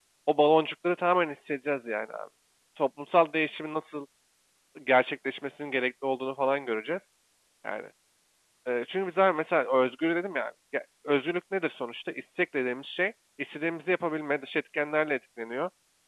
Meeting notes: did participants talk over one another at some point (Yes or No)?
No